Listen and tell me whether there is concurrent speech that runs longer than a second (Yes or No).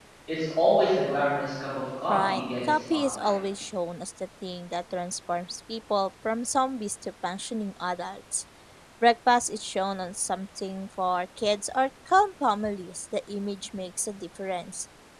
Yes